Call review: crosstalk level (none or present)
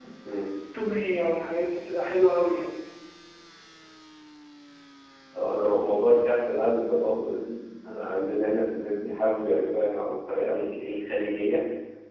none